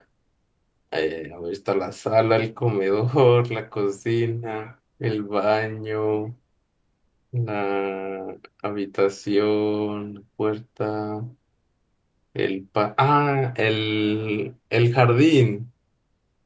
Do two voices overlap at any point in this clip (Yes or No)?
No